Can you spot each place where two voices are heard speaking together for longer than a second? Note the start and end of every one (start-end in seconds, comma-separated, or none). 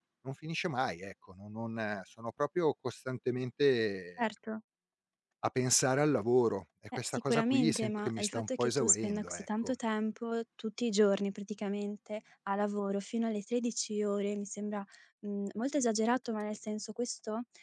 7.0-9.7